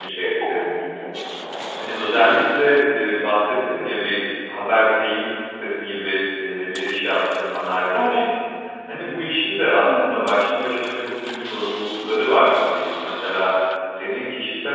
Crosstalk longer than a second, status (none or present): none